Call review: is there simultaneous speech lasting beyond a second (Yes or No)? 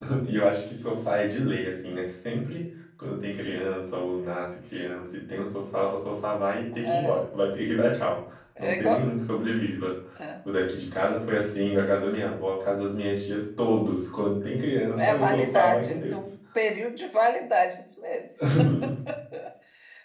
Yes